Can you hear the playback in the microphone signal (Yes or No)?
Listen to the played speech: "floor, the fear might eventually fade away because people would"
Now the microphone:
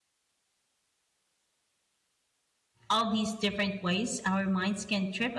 No